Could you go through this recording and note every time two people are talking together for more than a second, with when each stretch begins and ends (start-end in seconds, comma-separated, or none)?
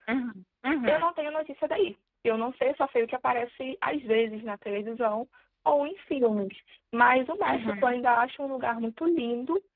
none